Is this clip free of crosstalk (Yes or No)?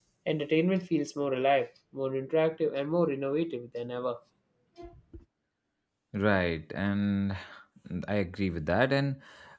Yes